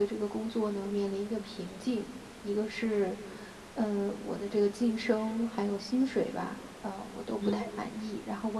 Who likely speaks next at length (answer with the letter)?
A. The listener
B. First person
B